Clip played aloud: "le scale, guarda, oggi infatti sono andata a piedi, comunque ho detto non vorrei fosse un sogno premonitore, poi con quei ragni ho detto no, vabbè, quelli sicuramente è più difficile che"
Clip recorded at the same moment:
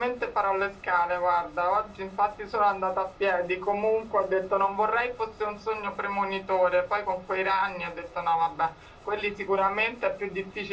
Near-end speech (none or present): none